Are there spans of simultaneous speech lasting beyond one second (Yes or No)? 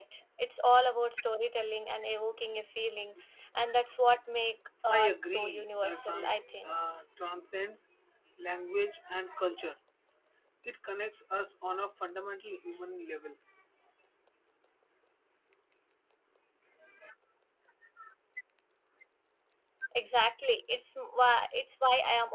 Yes